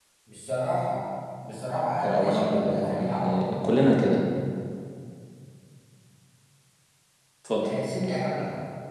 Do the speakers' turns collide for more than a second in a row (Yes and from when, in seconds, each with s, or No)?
Yes, from 2.0 s